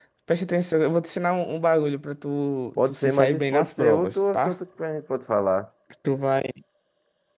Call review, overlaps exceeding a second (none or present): present